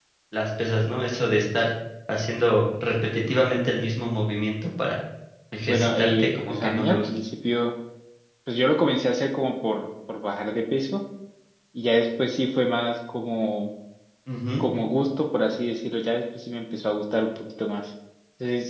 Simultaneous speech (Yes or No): Yes